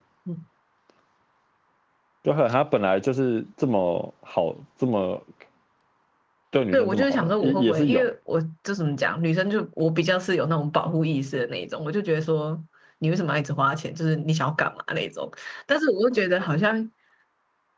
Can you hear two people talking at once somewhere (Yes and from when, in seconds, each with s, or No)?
Yes, from 6.7 s